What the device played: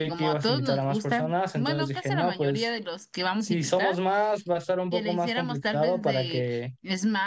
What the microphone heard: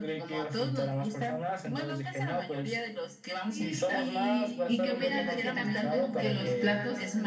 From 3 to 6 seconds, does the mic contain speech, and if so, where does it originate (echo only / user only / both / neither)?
both